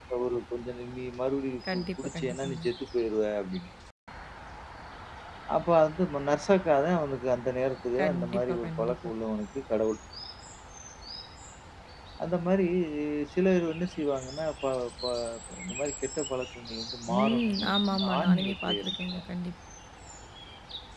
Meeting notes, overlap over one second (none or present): present